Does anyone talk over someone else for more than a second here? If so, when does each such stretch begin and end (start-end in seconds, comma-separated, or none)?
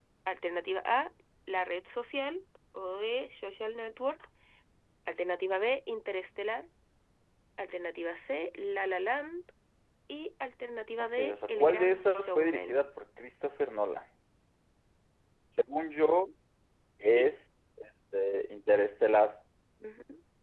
11.2-12.9